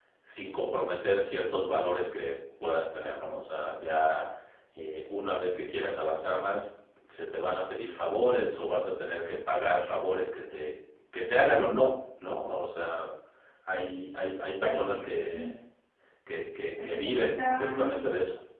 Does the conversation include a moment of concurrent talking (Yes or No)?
Yes